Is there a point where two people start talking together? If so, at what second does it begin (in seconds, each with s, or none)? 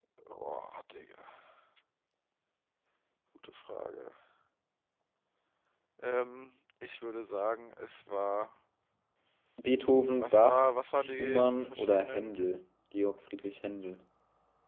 10.2 s